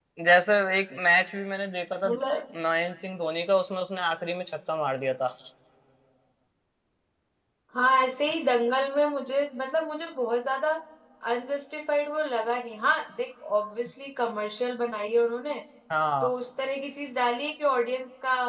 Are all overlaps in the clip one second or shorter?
Yes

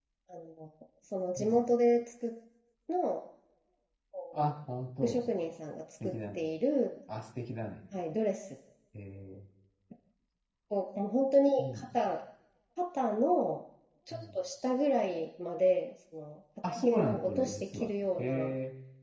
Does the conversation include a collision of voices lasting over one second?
Yes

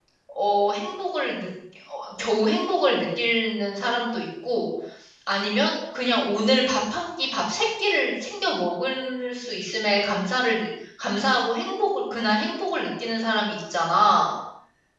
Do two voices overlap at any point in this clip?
No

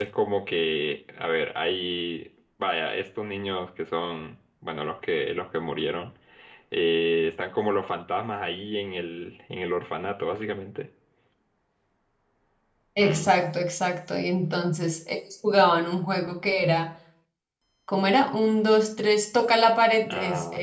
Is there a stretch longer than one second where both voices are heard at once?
No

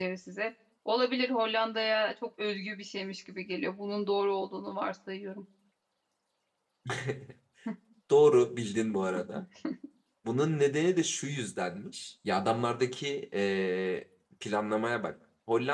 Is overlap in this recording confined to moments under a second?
Yes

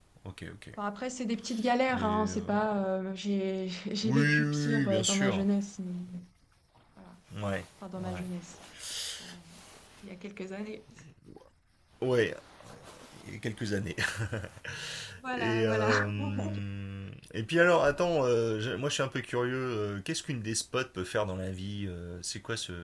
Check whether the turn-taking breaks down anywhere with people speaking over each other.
Yes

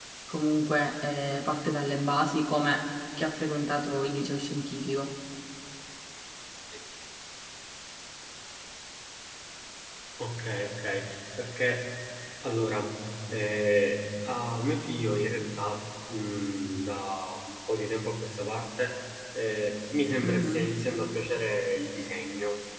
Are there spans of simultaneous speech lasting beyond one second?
No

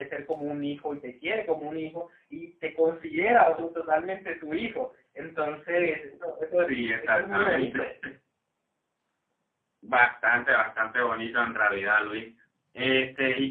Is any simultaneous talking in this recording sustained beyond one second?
Yes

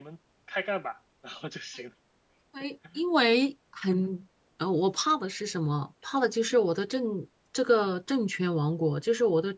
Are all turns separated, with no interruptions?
Yes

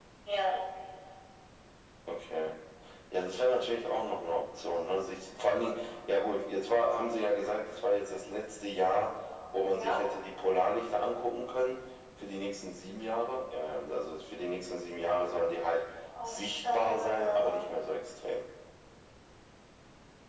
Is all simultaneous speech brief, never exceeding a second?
No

